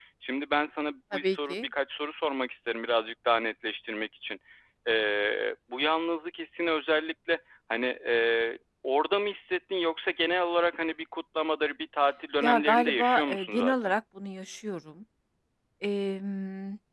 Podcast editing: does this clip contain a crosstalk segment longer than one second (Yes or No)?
Yes